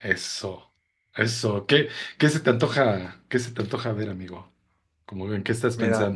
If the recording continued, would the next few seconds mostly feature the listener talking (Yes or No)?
Yes